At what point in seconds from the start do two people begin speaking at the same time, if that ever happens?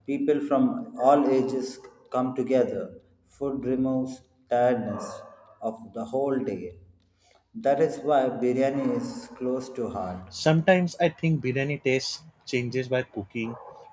none

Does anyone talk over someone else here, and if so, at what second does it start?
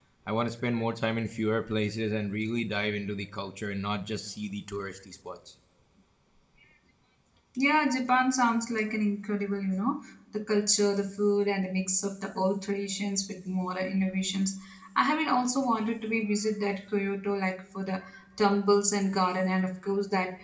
none

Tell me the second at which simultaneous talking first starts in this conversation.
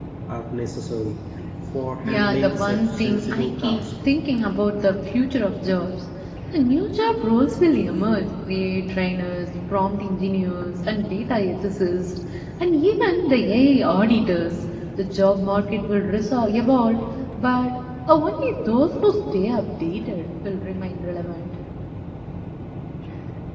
2 s

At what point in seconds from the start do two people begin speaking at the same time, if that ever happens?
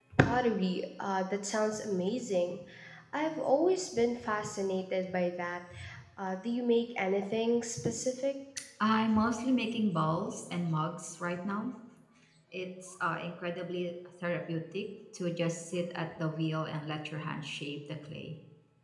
none

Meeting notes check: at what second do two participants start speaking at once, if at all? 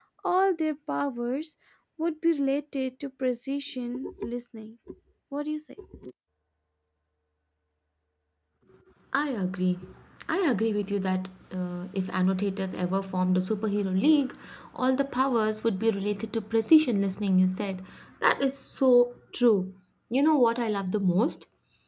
none

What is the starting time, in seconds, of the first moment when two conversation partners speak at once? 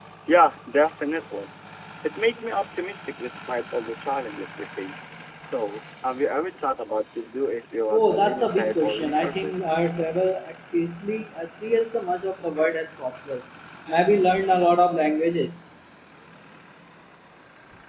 8 s

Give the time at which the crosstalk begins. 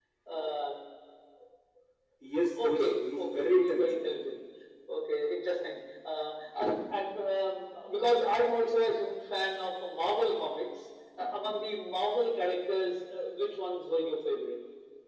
3 s

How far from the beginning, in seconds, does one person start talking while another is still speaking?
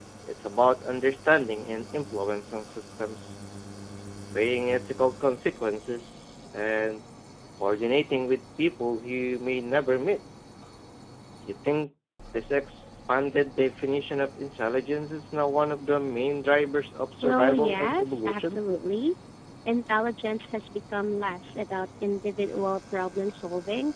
17 s

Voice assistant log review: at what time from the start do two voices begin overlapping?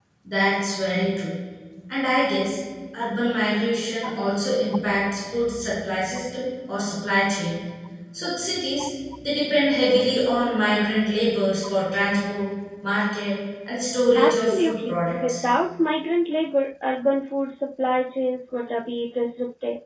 14 s

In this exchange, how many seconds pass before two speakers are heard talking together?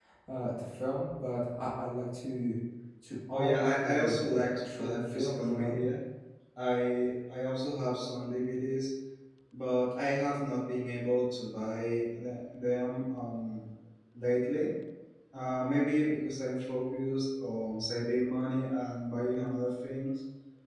3 s

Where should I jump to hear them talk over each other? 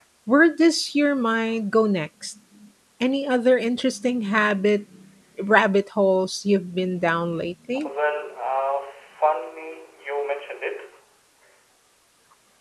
none

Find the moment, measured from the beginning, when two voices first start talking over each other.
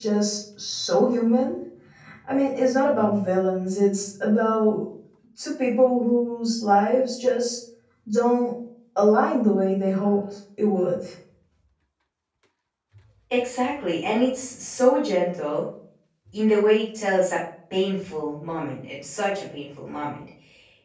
none

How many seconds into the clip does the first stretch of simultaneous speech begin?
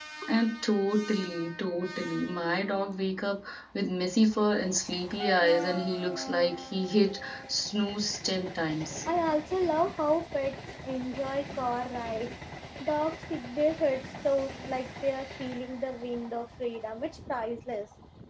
none

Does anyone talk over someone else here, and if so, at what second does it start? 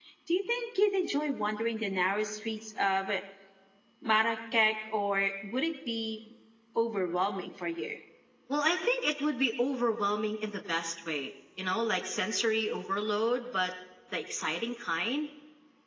none

